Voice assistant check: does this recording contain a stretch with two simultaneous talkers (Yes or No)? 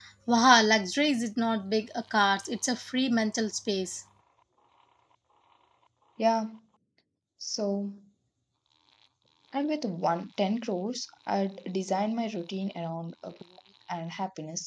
No